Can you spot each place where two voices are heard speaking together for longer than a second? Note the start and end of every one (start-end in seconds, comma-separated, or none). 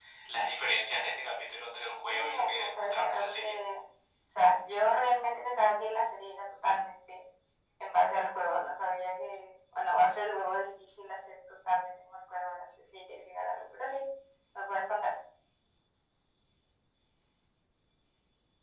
2.1-3.5